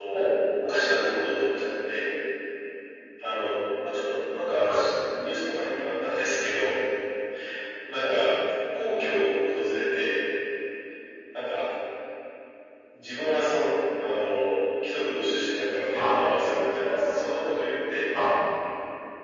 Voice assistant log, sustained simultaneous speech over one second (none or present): none